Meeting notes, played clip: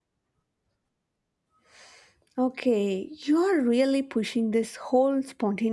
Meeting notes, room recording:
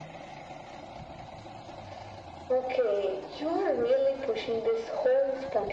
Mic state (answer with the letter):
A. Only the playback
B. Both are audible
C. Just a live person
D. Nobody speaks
A